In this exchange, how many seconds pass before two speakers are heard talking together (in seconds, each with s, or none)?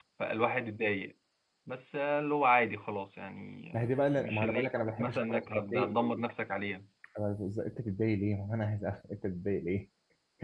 3.7 s